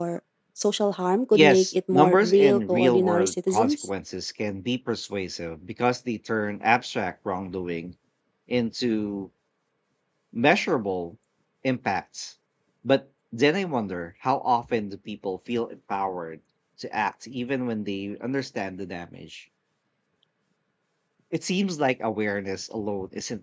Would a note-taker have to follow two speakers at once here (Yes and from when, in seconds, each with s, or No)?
Yes, from 1.3 s